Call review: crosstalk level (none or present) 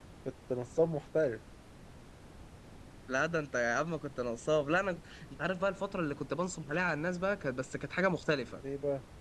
none